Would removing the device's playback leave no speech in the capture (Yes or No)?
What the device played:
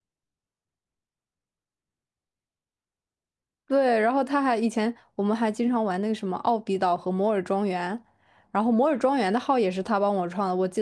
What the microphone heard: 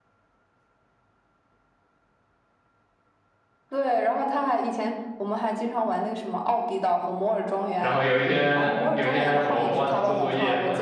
No